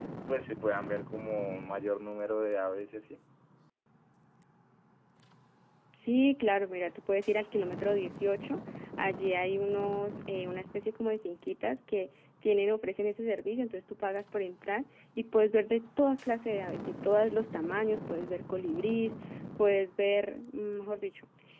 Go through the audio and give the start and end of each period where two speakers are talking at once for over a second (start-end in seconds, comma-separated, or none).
none